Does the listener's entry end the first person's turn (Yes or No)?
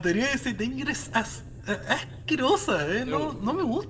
Yes